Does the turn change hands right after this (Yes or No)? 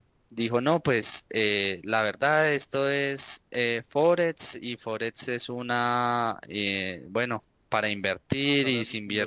No